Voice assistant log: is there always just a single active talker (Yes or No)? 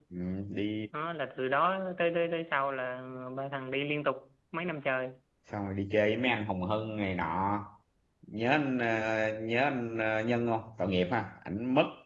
Yes